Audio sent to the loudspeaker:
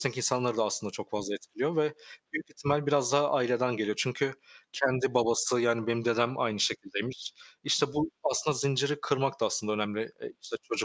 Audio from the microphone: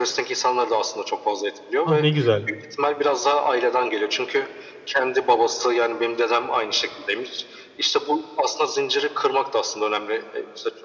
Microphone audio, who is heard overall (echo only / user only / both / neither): both